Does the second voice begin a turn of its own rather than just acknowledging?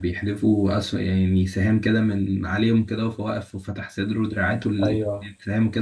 Yes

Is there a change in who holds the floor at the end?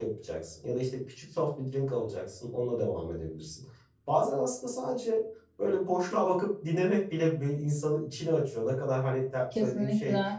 No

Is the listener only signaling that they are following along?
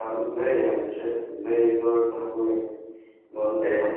Yes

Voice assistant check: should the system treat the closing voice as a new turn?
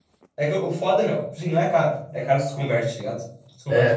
Yes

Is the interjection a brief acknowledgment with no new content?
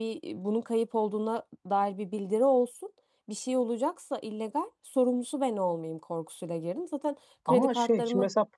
No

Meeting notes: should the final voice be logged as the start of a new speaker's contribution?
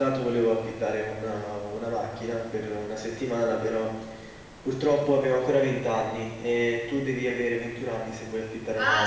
Yes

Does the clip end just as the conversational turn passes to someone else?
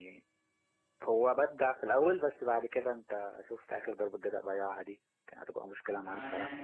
Yes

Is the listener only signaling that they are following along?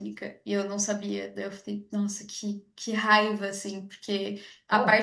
Yes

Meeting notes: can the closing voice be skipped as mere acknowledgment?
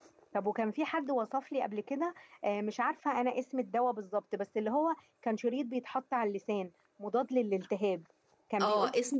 No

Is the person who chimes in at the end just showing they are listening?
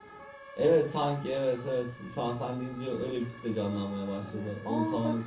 No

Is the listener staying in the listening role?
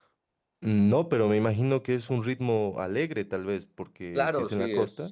No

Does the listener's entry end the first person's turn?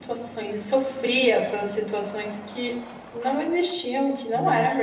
No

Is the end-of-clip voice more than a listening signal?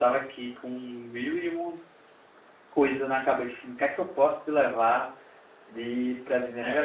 Yes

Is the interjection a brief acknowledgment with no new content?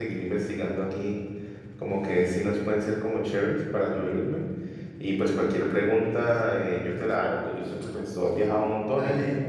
No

